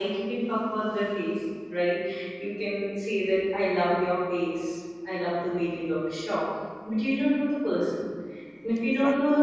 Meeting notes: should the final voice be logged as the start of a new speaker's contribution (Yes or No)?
No